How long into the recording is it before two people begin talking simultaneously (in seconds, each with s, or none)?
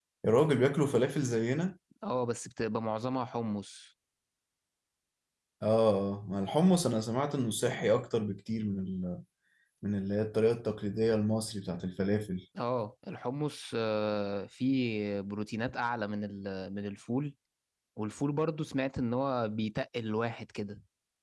none